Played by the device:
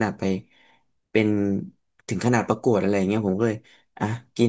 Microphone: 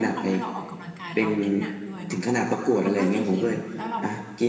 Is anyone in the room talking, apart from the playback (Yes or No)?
Yes